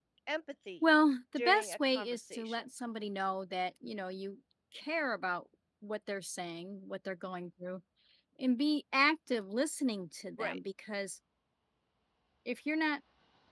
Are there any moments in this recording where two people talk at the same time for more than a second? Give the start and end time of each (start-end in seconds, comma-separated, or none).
1.4-2.6